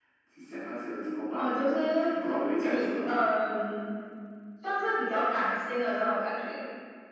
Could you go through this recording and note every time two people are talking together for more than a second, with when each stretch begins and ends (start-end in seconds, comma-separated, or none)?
none